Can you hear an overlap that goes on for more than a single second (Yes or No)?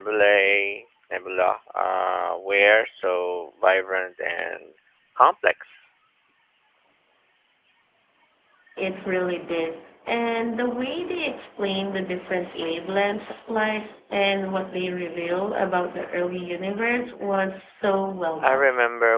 No